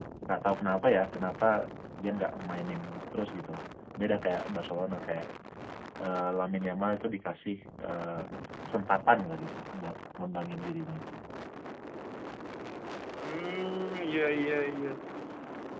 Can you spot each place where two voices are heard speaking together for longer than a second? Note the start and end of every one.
none

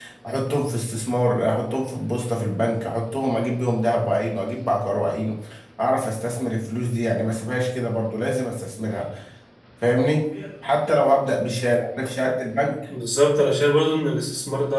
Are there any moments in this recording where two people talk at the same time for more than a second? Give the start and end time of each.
none

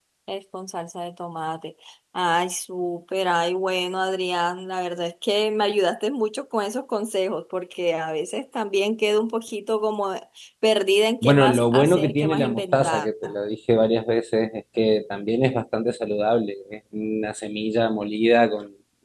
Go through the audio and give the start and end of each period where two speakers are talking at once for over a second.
11.2-13.1

